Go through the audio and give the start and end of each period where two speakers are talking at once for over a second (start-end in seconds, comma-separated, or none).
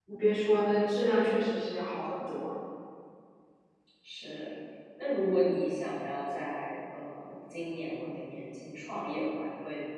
none